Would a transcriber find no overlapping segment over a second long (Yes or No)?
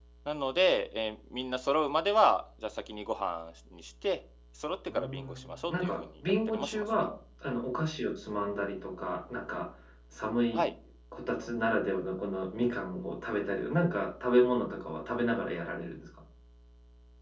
No